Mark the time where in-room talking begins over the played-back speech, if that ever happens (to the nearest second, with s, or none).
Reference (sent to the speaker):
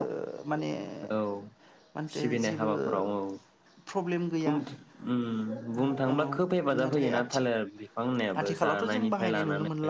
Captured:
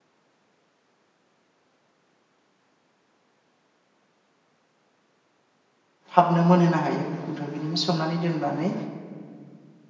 6 s